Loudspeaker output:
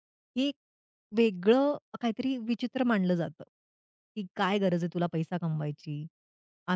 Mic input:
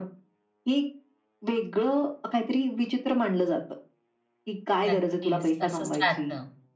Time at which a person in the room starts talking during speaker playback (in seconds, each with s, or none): 4.8 s